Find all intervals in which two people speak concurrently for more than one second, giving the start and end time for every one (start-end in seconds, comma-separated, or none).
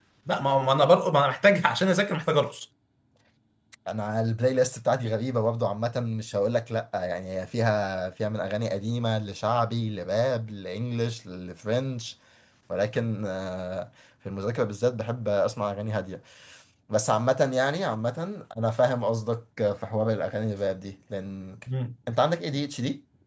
none